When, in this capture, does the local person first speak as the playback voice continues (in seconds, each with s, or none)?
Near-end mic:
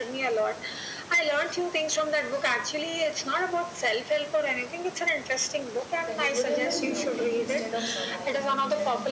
6.0 s